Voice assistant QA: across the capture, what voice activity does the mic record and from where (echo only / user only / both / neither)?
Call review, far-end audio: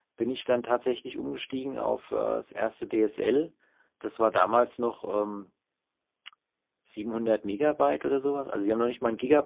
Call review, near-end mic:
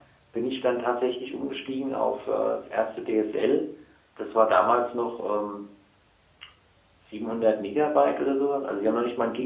echo only